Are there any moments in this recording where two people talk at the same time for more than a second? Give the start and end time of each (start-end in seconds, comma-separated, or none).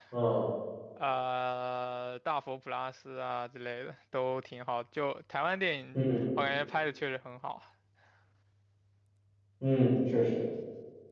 none